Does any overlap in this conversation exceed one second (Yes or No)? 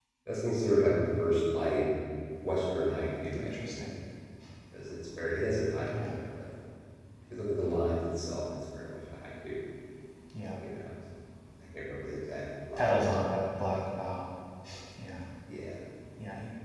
No